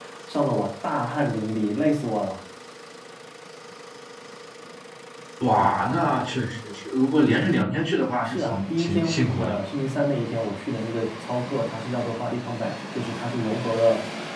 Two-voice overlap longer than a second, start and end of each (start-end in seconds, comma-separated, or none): 8.2-9.5